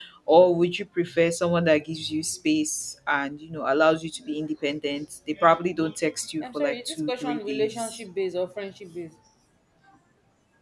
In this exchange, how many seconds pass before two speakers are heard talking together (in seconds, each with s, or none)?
6.4 s